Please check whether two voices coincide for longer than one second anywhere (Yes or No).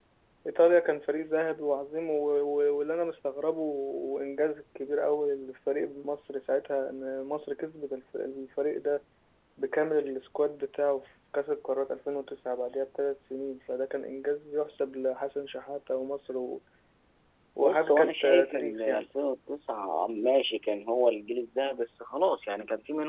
Yes